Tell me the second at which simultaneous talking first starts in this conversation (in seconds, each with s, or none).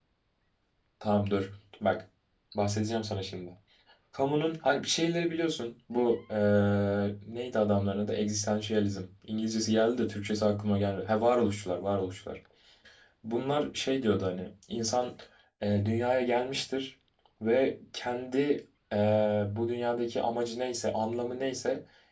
none